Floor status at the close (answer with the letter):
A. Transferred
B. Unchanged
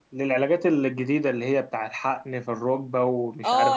A